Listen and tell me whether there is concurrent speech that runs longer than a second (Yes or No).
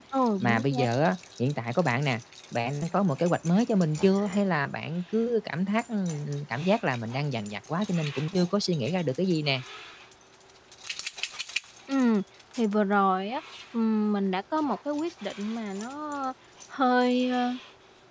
No